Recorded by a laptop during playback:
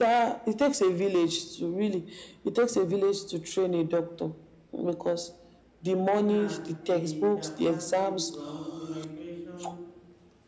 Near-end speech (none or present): present